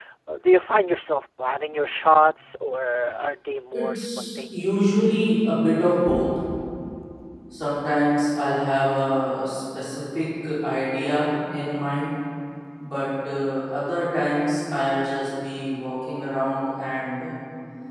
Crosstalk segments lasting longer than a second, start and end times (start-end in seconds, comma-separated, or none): 3.7-5.0